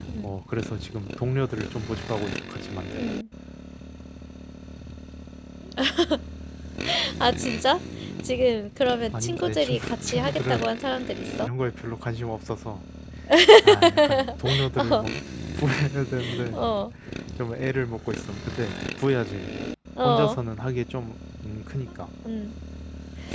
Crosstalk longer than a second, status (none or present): present